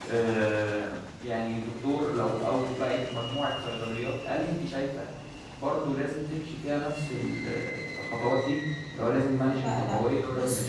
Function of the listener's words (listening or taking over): taking over